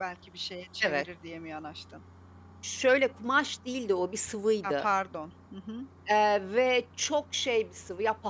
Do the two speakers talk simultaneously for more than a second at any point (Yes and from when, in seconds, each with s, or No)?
No